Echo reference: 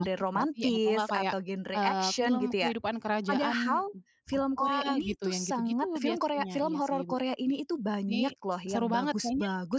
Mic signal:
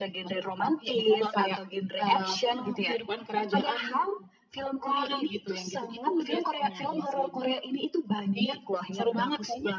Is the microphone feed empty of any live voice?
Yes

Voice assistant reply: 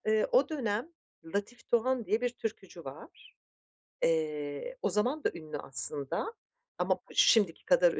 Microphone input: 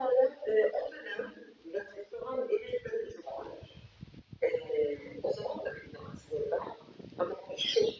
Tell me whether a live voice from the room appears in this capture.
No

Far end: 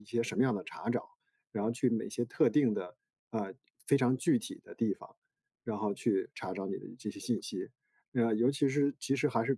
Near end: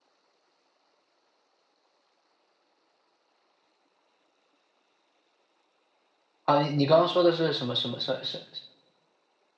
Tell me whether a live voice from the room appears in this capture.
Yes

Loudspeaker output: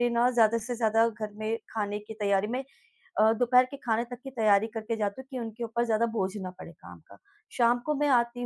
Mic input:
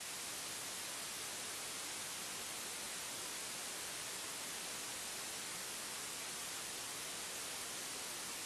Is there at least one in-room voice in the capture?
No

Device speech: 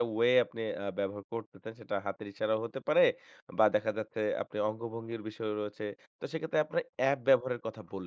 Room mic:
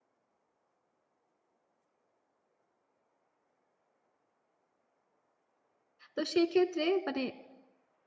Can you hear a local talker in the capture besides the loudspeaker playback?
Yes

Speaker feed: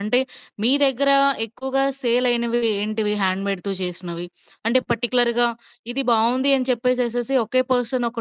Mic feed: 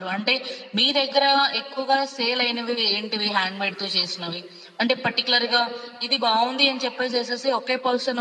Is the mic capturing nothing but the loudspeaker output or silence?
Yes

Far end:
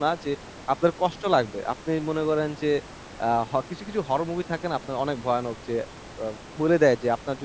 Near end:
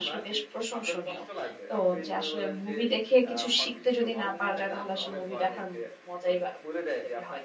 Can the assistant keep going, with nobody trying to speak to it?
No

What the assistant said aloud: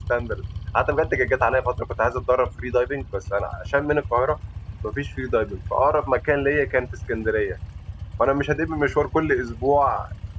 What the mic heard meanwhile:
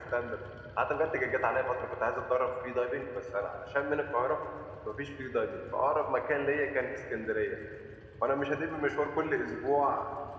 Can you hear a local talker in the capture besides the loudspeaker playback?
No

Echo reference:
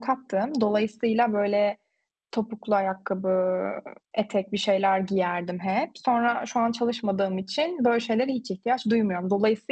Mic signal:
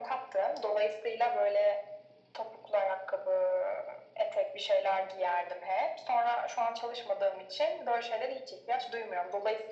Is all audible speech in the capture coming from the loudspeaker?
Yes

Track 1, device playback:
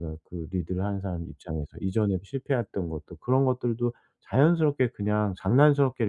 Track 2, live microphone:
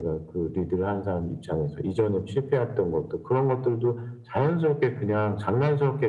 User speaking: No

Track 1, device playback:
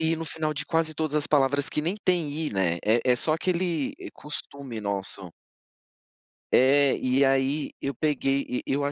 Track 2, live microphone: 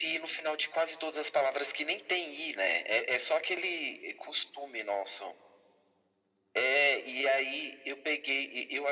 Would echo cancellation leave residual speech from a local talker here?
No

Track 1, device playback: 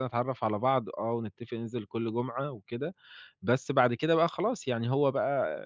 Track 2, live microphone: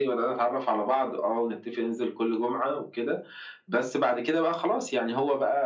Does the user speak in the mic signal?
No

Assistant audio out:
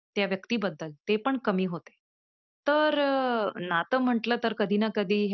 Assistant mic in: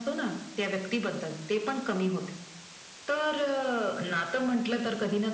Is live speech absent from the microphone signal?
Yes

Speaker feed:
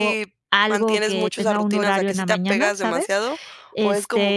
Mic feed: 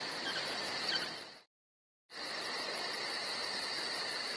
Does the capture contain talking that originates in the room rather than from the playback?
No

